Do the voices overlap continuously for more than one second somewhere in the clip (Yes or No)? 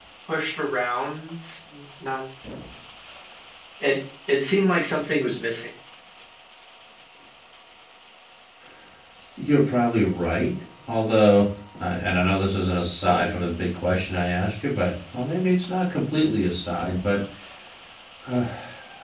No